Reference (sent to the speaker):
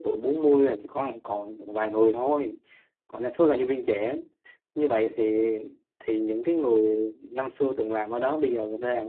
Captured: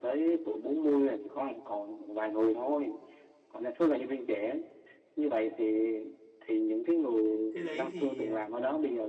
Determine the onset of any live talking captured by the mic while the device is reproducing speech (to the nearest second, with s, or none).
8 s